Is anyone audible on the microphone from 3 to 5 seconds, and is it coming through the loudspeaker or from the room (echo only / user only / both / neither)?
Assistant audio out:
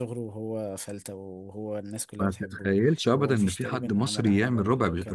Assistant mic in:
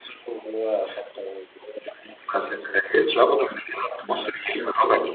echo only